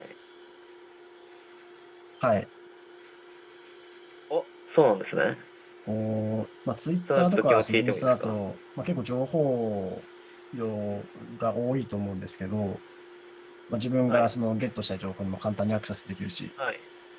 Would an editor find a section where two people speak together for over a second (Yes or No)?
Yes